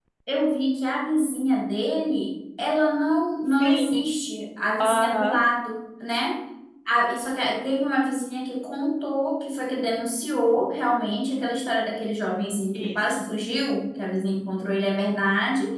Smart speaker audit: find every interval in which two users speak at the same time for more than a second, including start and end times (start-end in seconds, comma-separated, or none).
none